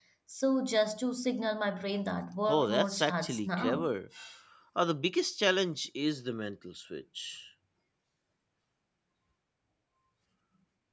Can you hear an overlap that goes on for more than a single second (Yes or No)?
Yes